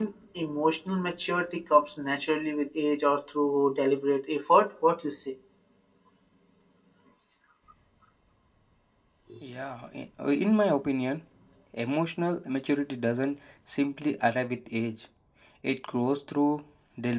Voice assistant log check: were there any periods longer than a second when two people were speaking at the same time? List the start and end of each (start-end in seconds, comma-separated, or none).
none